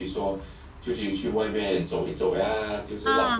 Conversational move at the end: taking over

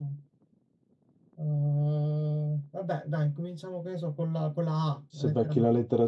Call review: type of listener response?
taking over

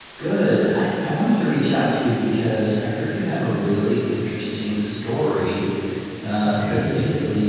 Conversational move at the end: listening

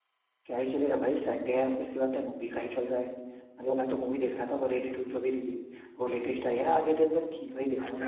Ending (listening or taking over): taking over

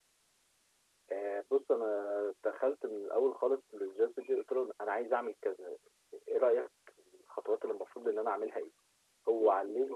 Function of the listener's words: listening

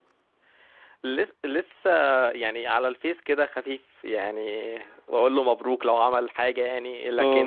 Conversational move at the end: listening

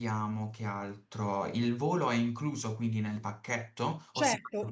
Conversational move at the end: taking over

